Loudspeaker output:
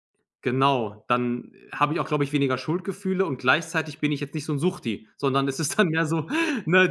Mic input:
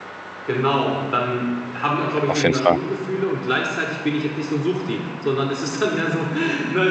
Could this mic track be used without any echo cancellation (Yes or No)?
No